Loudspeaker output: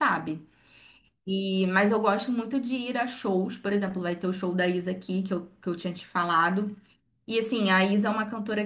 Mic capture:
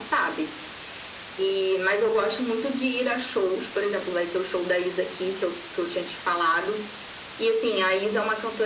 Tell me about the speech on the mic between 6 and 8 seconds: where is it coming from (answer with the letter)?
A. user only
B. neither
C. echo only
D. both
C